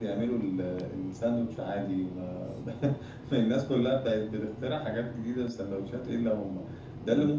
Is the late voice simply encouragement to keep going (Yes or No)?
Yes